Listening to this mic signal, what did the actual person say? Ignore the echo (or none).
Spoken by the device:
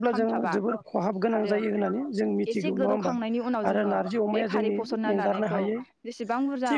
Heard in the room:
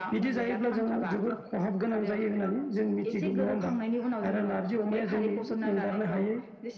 none